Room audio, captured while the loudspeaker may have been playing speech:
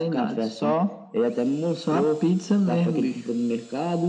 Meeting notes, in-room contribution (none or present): none